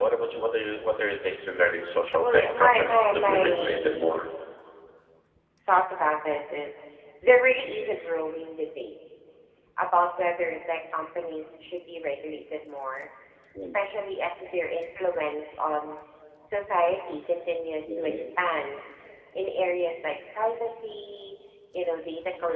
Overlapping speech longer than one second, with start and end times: 2.2-4.1

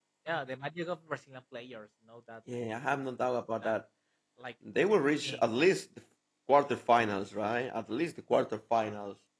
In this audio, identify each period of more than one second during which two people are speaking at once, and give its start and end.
none

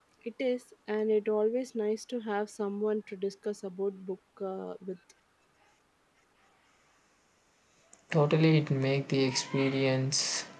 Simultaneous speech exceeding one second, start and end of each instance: none

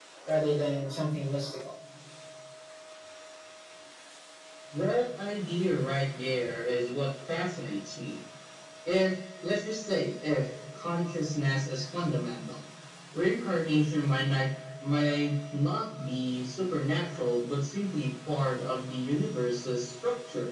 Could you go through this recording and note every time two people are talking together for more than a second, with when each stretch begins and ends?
none

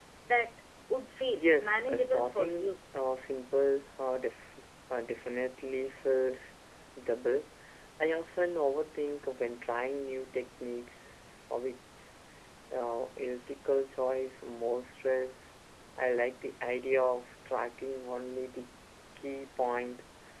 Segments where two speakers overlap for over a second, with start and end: 1.3-2.7

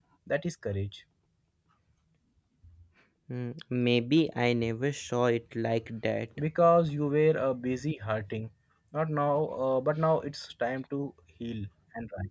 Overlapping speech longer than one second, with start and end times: none

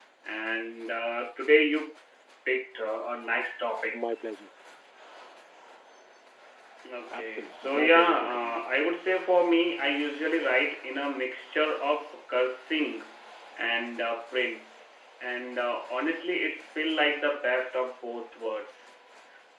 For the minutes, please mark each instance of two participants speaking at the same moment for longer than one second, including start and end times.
7.1-8.7

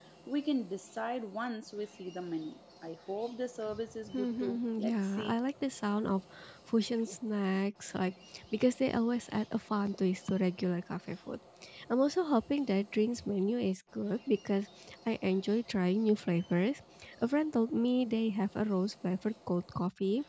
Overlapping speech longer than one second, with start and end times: 4.1-5.4

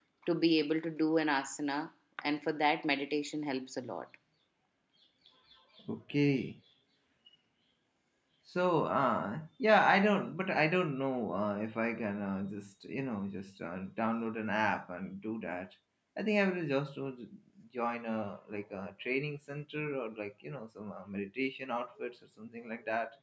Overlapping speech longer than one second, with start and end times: none

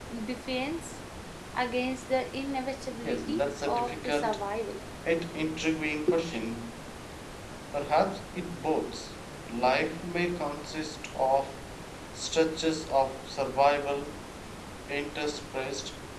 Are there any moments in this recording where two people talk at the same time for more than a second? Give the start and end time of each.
3.0-4.4

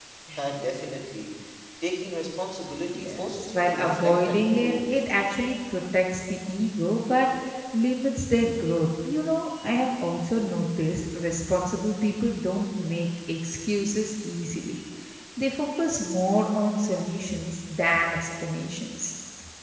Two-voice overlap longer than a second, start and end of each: 2.9-5.0

